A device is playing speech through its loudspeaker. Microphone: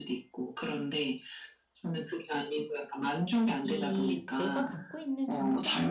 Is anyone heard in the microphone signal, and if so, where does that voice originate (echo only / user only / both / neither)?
both